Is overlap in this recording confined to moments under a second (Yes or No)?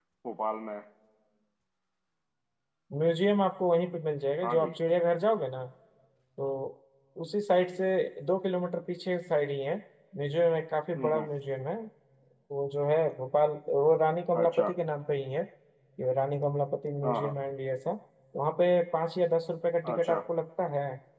Yes